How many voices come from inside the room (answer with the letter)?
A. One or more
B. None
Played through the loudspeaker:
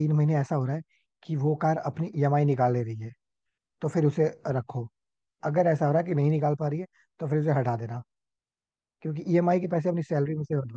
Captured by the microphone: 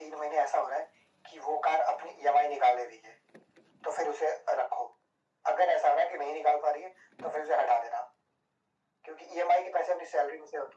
B